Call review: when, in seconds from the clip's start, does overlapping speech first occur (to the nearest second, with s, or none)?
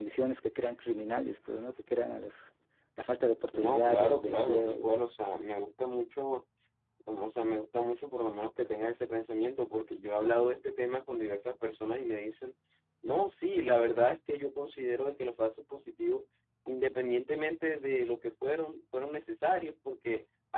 4 s